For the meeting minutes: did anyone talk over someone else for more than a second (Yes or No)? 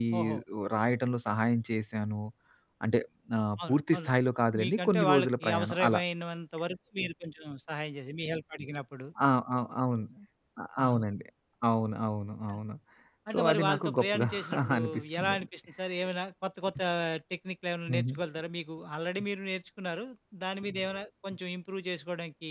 Yes